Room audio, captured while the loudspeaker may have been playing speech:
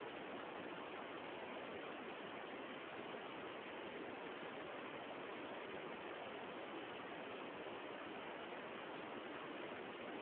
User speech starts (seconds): none

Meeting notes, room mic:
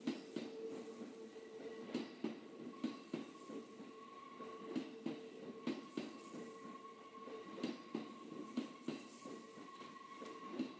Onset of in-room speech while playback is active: none

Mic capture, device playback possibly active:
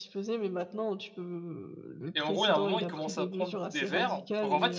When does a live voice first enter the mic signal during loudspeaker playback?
2 s

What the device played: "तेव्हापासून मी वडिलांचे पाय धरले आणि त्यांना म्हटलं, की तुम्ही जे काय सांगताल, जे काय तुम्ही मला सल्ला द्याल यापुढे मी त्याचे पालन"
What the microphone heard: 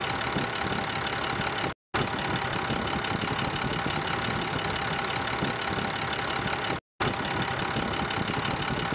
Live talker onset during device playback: none

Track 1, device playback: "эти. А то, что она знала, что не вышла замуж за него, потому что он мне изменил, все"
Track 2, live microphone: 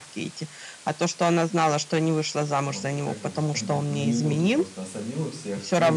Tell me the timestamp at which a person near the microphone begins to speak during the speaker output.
3 s

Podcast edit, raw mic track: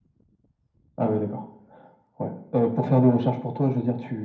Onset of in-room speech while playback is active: none

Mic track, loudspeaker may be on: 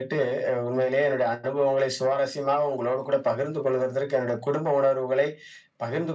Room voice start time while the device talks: none

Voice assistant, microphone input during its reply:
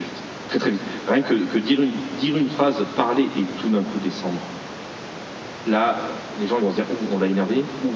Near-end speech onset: none

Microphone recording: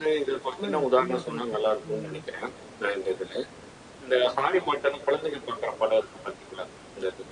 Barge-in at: 1 s

